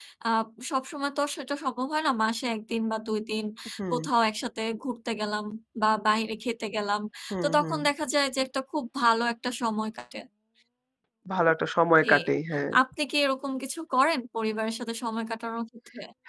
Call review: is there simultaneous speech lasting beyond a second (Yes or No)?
No